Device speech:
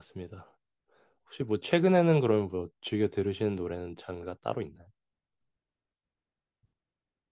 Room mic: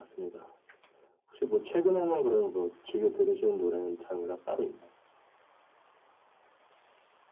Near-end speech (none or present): none